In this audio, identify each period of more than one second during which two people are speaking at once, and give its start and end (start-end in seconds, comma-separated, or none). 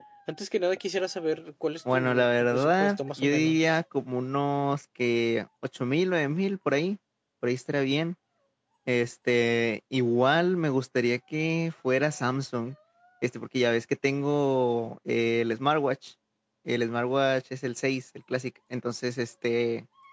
1.9-3.8